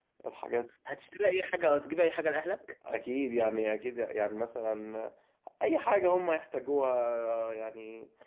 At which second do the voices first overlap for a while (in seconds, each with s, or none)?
none